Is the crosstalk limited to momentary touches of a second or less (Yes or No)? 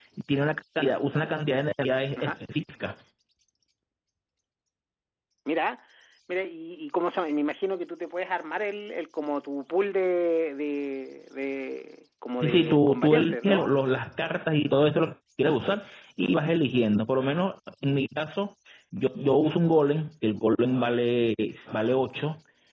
No